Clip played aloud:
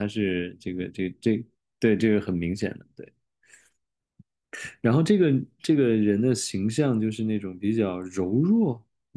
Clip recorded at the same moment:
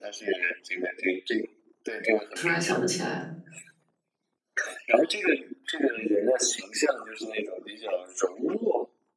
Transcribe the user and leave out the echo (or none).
突然想不起来了，